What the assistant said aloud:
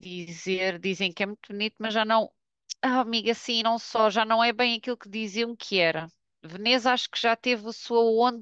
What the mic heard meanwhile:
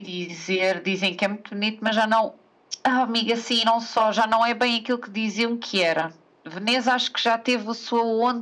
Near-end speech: none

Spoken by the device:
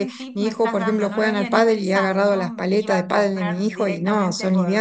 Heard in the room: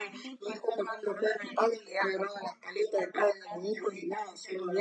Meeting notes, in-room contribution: none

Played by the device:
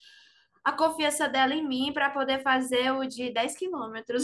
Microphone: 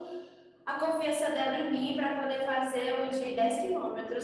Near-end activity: none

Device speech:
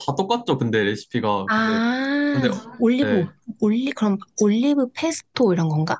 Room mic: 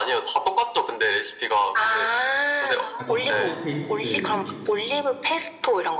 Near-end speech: present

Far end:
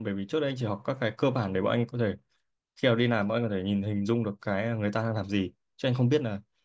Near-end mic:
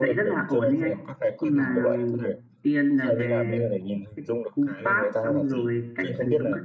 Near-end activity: present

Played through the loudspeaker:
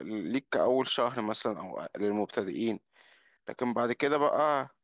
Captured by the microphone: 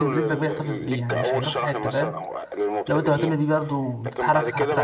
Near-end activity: present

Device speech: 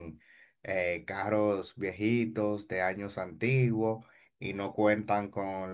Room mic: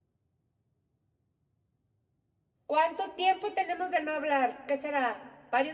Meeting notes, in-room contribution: present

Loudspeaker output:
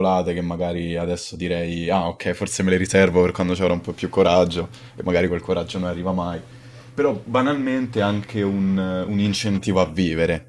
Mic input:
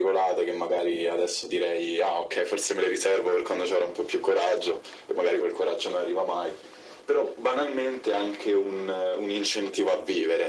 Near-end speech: none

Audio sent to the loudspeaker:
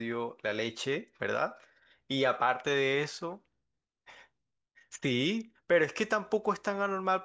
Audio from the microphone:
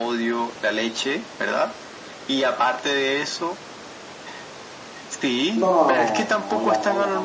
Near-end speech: present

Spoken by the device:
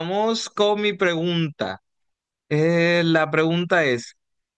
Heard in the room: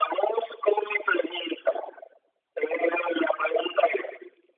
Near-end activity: none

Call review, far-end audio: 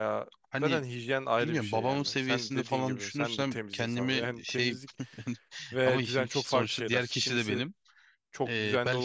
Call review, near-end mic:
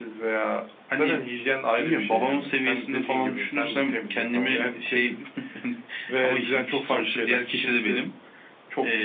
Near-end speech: none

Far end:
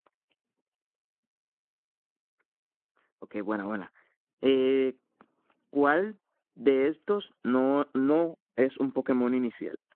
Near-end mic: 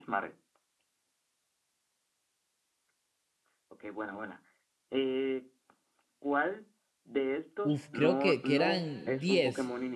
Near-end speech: present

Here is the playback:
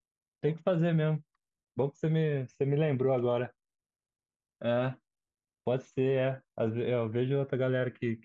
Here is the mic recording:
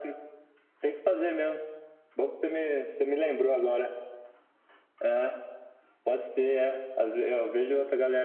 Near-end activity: none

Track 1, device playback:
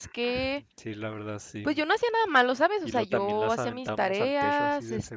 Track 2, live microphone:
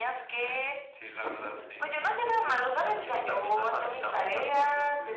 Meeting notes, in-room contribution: present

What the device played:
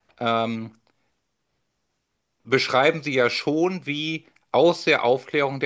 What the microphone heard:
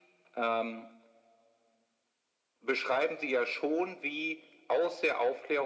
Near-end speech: none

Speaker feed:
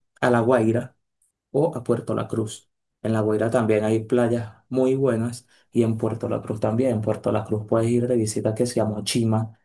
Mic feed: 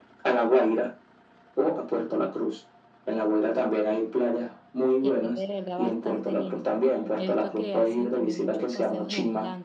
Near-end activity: present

